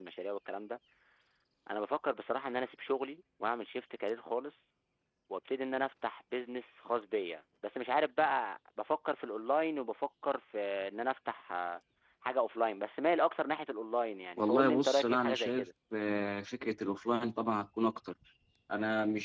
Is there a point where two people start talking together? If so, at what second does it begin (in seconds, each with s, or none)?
14.4 s